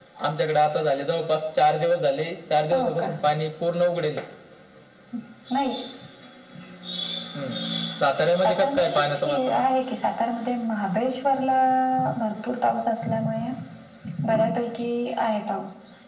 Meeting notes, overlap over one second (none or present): present